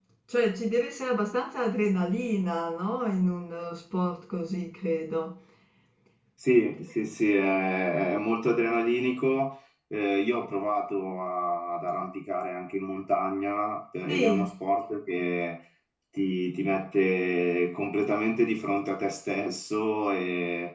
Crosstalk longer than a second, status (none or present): none